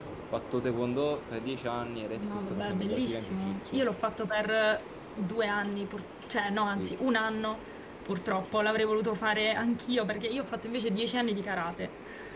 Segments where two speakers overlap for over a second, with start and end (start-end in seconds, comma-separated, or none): 2.1-3.9